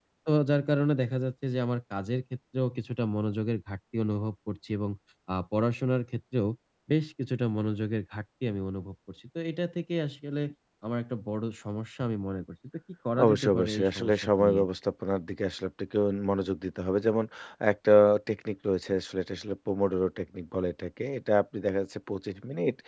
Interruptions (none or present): present